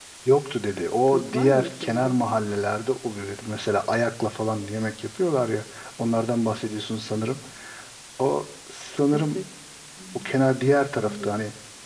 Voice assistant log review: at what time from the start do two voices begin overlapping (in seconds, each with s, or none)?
0.9 s